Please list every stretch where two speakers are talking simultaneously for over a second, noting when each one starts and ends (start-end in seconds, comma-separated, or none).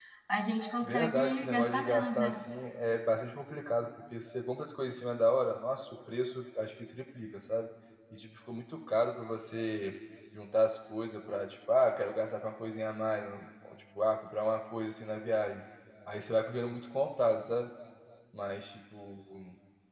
0.8-2.4